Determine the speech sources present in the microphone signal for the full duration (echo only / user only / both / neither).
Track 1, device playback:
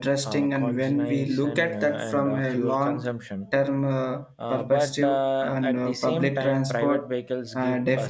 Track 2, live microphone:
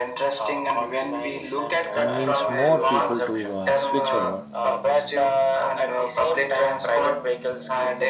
both